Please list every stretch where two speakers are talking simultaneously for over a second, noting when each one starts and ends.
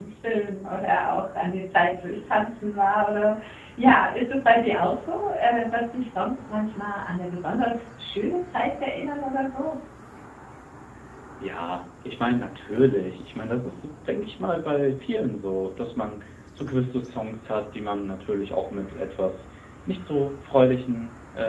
none

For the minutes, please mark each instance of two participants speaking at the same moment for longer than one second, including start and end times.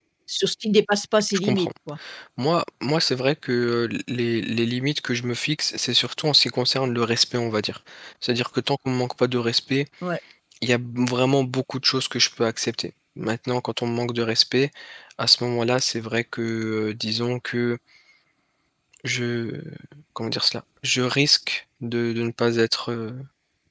none

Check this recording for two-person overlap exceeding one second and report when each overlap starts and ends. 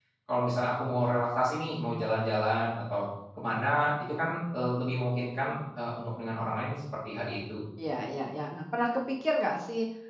none

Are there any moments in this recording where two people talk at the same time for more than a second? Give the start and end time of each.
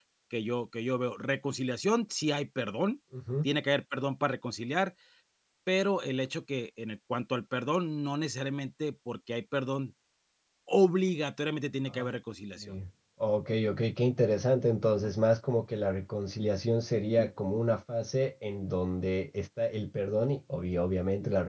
none

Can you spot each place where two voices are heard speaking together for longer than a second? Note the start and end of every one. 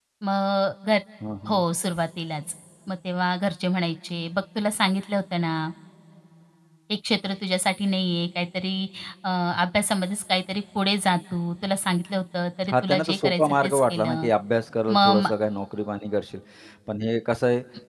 12.7-14.3

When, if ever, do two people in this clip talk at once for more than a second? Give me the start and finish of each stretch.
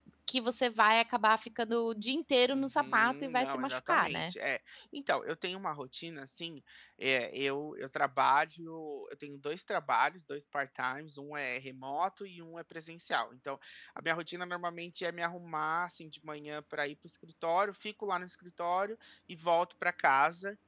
2.5-4.3

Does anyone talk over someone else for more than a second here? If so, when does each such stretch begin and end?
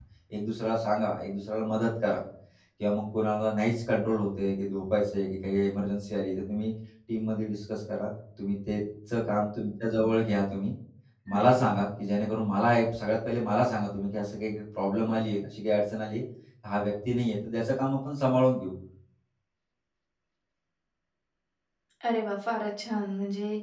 none

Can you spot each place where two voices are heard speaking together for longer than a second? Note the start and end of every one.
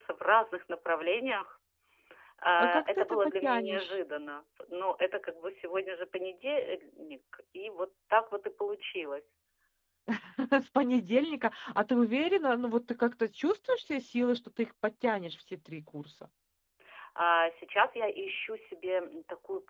2.6-3.9

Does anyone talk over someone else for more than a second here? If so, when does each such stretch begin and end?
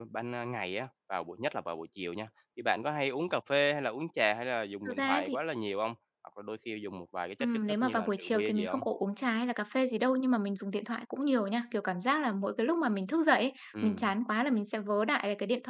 7.4-8.8

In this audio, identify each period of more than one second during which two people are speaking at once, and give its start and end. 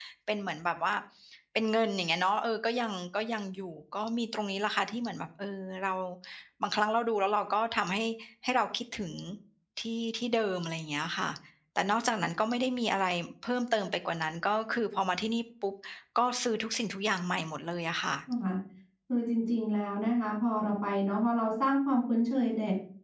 none

